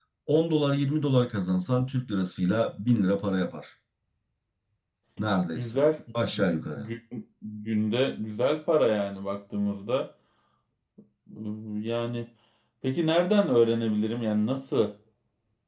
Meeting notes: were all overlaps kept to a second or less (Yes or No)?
Yes